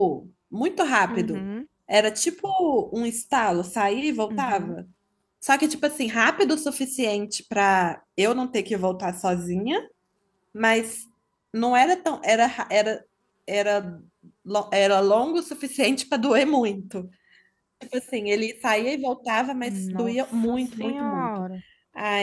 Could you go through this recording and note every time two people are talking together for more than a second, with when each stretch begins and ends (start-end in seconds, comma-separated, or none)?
19.6-21.3